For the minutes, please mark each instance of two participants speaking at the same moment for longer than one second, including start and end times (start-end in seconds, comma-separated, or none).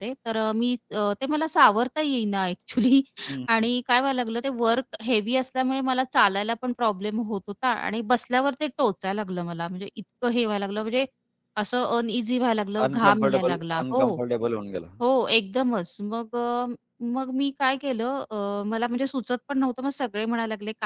12.8-14.2